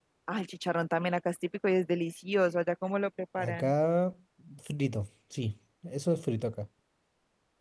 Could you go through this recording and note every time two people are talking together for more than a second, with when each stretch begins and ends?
none

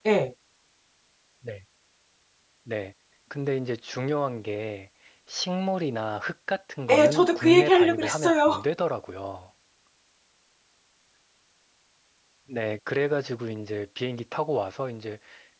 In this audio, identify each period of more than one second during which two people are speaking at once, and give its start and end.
6.9-8.6

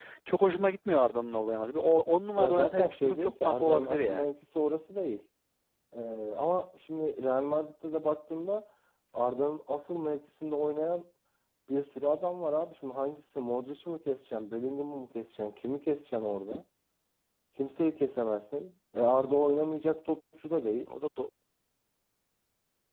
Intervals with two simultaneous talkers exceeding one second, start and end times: 2.4-4.2

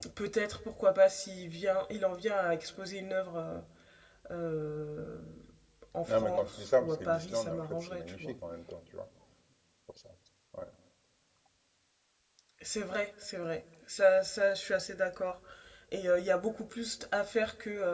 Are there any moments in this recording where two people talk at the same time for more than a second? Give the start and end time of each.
6.0-8.3

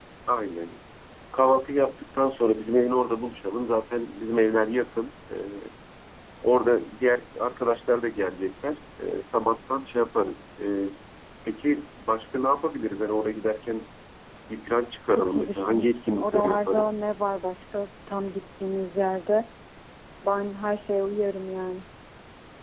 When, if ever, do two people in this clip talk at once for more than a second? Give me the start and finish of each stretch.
15.1-16.9

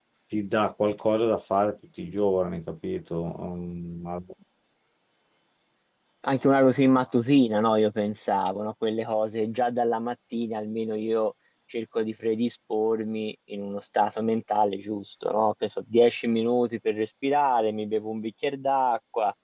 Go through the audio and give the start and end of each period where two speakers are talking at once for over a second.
none

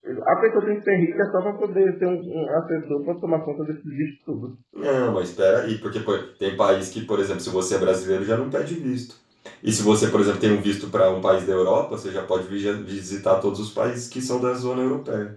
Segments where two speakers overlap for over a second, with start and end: none

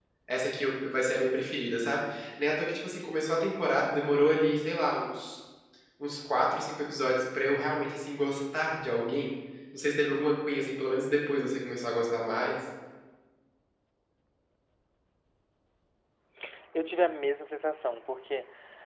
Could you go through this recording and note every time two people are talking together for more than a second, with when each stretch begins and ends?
none

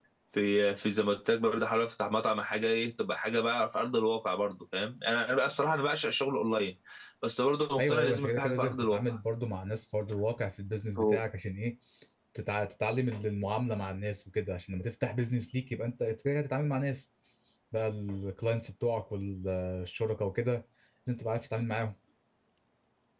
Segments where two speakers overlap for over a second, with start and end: 7.8-9.0

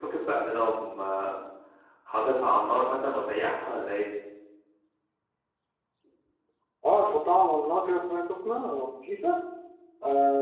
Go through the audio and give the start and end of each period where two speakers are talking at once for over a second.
none

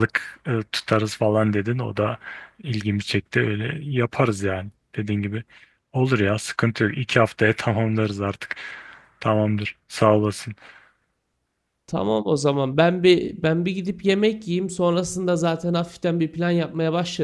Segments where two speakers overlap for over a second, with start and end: none

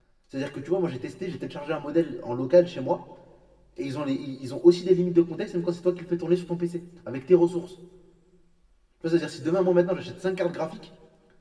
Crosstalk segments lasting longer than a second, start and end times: none

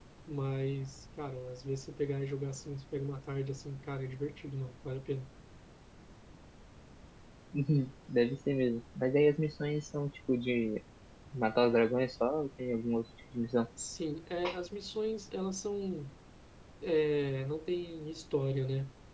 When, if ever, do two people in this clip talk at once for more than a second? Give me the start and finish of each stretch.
none

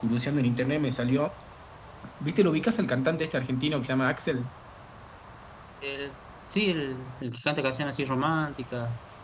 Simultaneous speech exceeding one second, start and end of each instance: none

